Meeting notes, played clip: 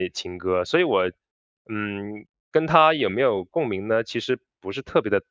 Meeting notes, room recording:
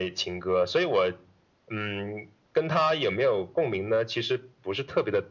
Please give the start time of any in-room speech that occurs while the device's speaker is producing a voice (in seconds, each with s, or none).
none